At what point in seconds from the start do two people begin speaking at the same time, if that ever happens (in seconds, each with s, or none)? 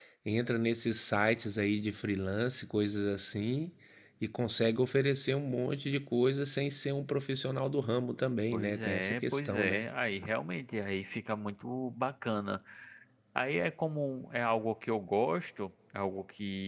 8.5 s